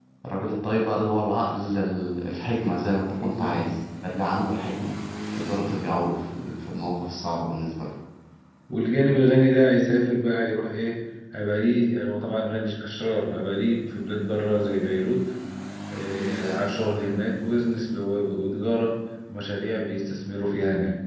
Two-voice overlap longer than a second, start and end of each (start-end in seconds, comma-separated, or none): none